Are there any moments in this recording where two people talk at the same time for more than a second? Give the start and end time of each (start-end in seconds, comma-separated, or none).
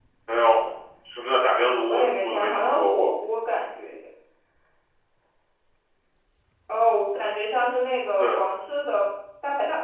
1.9-3.1